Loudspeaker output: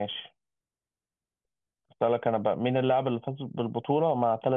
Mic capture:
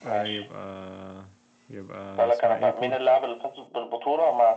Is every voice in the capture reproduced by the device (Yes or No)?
No